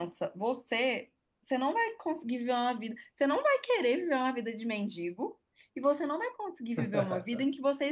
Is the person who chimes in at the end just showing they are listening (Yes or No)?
Yes